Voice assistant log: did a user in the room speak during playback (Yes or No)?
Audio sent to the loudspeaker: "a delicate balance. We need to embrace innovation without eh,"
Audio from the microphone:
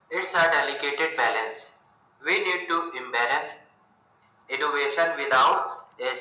No